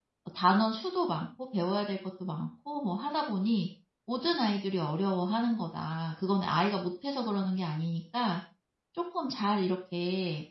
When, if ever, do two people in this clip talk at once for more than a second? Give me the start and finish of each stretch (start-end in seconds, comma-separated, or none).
none